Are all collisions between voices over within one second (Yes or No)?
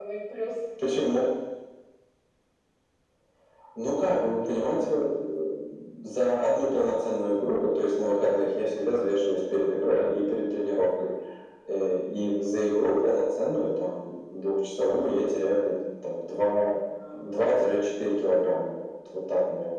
Yes